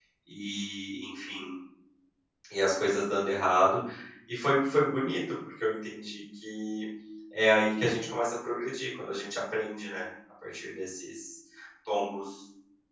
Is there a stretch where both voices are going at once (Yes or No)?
No